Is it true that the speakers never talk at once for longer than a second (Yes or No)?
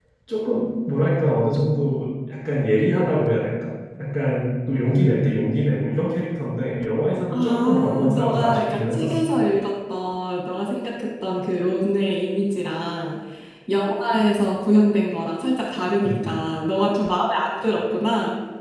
No